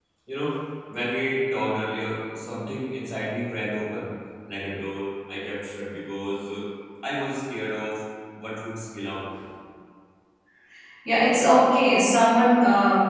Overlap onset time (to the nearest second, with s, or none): none